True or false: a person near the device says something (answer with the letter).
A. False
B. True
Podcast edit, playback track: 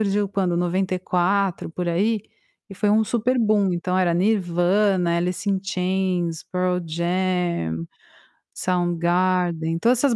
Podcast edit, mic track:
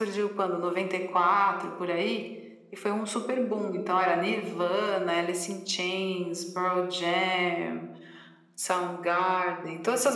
A